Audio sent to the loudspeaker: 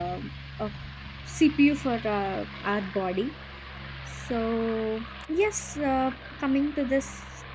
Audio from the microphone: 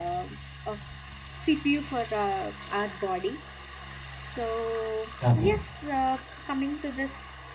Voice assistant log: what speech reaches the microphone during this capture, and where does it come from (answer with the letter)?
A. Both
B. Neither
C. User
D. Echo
A